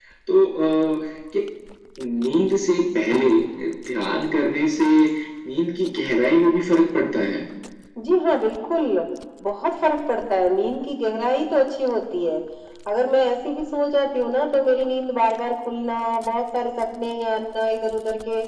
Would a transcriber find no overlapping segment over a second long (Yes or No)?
Yes